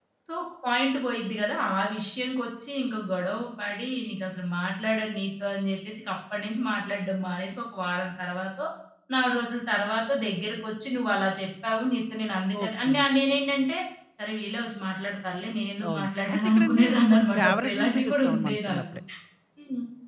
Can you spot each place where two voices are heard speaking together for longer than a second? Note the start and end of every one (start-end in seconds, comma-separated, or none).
15.9-19.0